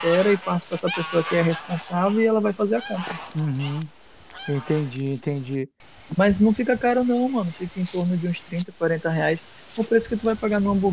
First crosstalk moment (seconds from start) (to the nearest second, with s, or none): none